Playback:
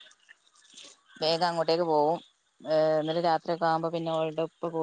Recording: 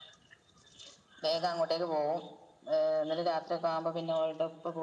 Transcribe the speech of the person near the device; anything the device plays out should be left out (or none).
none